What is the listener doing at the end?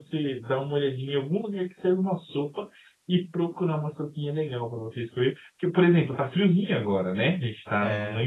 listening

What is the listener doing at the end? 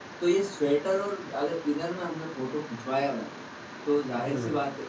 listening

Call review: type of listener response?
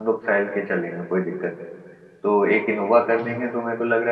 listening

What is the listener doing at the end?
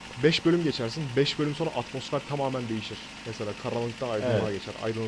listening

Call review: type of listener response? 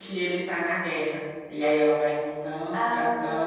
listening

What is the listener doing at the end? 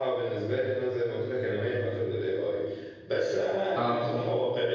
listening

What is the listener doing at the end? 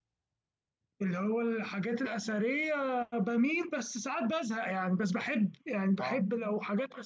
listening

